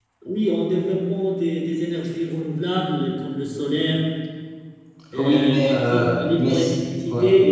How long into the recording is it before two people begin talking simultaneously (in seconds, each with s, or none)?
5.2 s